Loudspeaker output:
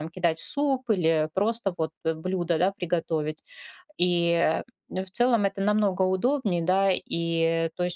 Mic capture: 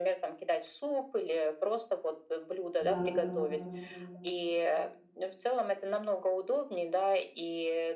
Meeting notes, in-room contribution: present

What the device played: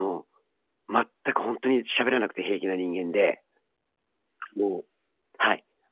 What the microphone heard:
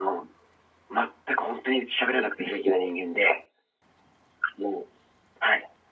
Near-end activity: none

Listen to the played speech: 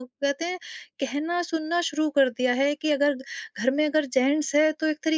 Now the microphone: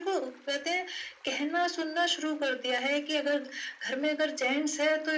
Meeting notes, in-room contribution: none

